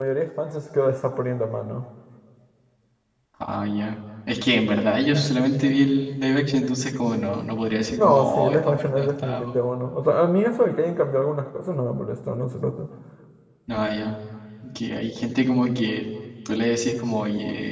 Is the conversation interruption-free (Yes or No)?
No